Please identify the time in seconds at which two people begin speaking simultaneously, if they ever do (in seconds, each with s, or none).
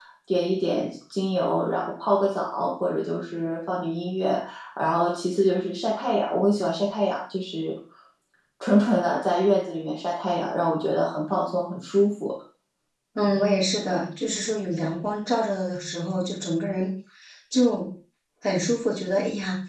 none